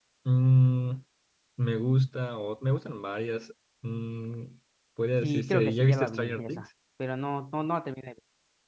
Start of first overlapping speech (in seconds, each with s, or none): 5.2 s